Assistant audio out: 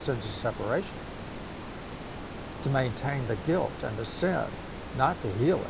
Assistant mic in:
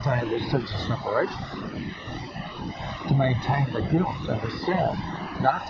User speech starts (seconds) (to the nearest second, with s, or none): none